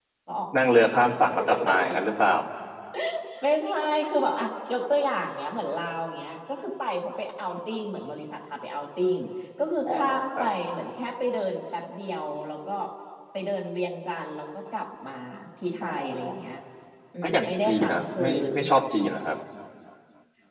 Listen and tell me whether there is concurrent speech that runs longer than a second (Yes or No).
Yes